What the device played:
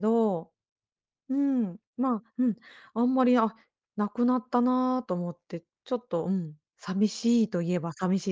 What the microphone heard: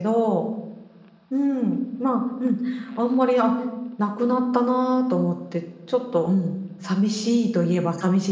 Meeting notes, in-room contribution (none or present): none